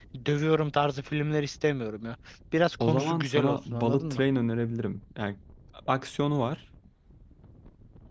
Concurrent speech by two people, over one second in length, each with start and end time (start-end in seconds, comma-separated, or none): 2.8-4.2